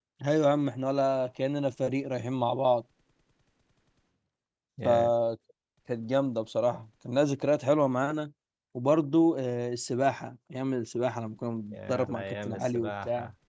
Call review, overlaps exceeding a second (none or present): present